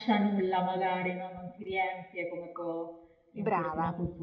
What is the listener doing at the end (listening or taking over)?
listening